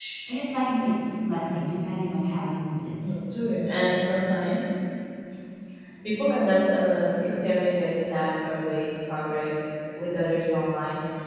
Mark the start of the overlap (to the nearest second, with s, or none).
none